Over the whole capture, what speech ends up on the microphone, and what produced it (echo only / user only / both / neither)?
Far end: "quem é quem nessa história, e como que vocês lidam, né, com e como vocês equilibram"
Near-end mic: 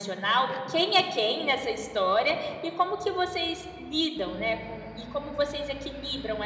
echo only